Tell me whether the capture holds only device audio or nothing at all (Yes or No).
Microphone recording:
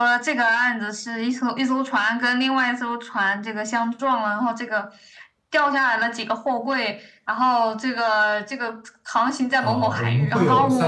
No